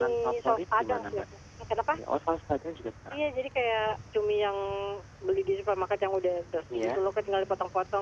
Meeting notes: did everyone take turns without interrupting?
No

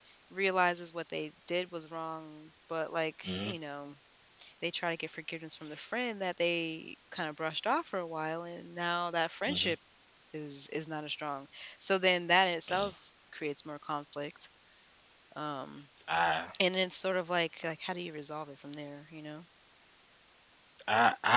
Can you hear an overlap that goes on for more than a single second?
No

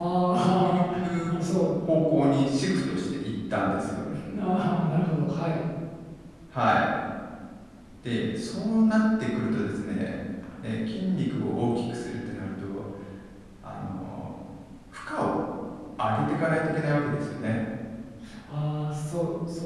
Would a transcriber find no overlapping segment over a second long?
Yes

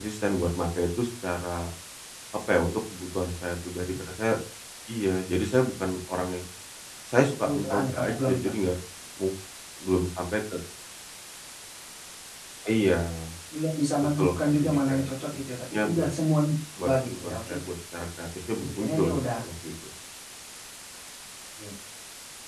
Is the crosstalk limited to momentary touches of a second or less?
No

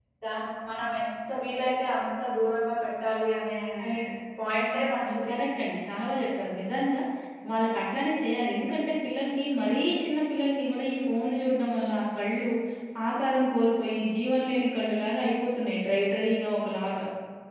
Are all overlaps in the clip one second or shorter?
Yes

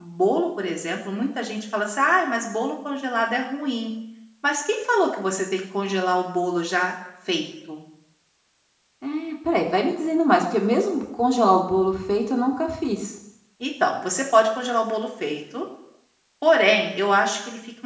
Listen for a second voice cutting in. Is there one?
No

